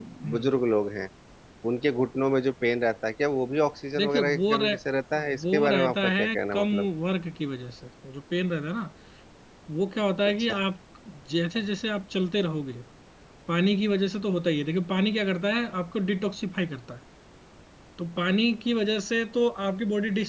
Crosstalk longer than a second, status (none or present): present